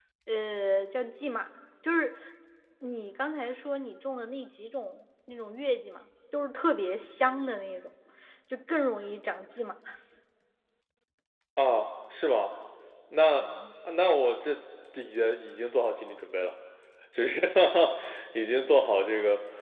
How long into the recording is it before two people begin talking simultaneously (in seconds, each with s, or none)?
none